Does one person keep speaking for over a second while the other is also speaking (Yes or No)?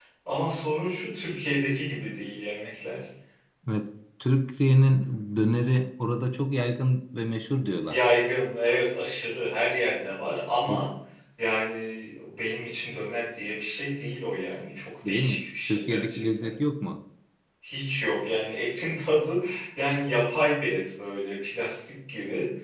Yes